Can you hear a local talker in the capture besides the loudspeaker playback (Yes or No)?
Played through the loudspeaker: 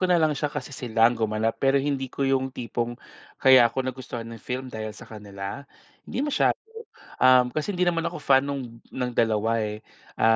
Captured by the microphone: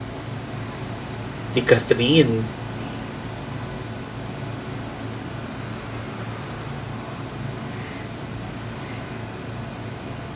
Yes